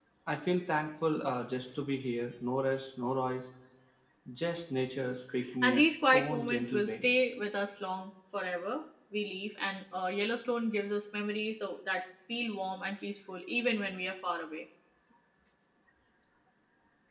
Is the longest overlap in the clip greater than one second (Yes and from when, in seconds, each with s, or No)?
Yes, from 5.6 s